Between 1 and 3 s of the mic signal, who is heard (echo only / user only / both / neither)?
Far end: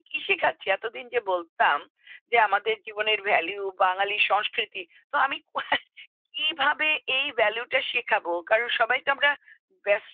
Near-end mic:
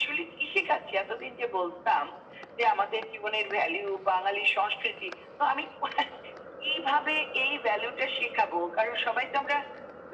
echo only